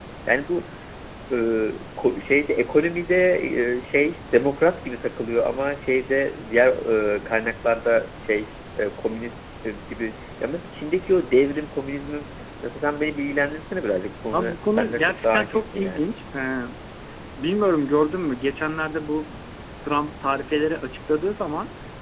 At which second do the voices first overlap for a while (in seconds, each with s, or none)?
14.3 s